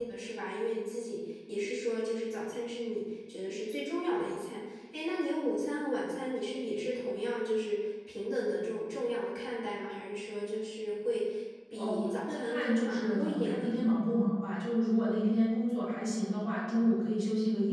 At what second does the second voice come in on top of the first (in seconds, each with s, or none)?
11.7 s